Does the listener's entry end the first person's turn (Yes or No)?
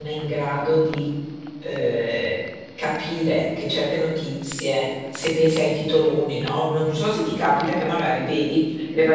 No